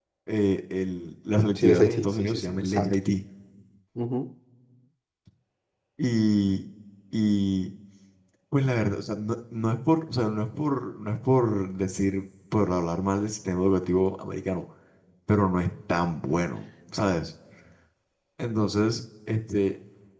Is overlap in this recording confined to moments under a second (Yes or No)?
No